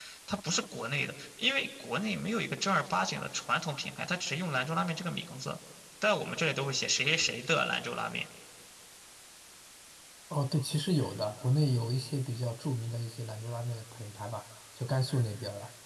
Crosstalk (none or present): none